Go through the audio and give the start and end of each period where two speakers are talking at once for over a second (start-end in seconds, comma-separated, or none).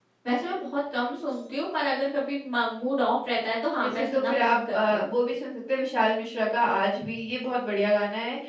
3.8-5.1